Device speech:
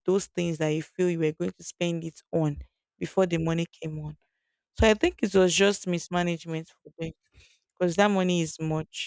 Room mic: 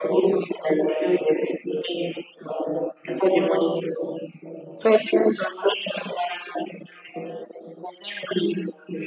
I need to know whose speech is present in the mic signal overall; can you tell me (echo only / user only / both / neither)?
echo only